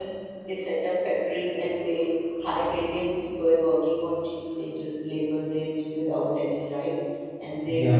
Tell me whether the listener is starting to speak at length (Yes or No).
No